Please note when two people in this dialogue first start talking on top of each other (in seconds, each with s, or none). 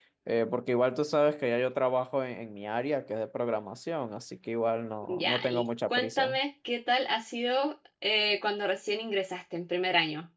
5.0 s